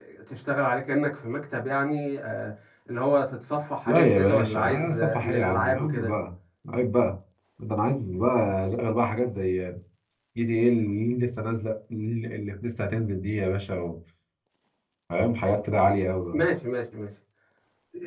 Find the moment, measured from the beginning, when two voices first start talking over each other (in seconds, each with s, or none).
3.9 s